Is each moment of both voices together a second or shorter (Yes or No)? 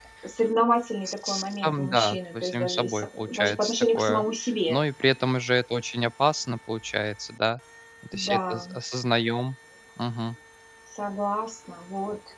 No